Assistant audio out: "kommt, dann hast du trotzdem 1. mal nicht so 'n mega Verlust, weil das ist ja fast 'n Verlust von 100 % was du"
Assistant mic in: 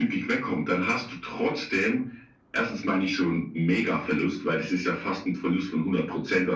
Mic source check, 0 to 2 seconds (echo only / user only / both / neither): echo only